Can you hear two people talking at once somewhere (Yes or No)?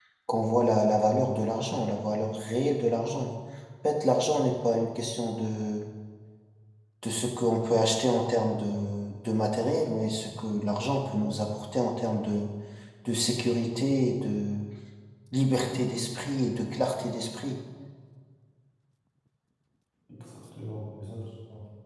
No